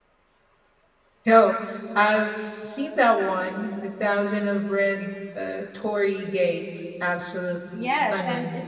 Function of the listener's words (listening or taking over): taking over